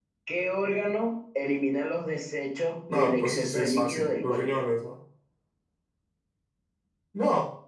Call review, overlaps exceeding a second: present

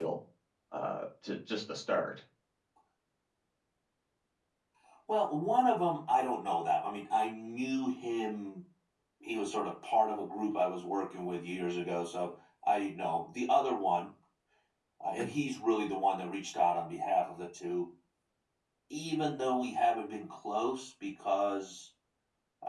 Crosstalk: none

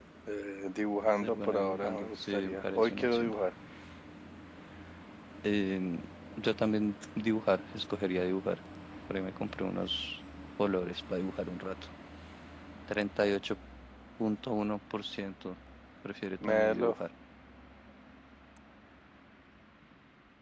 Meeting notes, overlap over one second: present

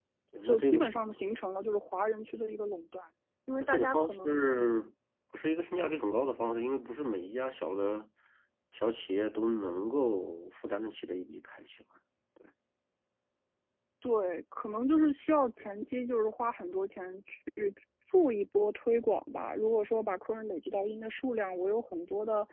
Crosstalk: present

